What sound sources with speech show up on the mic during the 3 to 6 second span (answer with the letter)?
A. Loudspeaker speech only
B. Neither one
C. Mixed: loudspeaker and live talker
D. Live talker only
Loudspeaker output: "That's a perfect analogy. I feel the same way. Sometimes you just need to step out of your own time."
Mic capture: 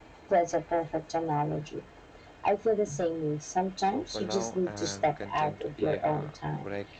C